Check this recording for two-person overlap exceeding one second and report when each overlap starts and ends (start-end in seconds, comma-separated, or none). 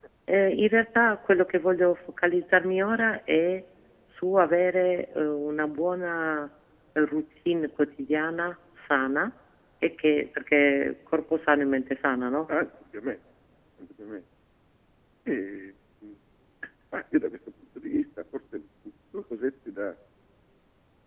none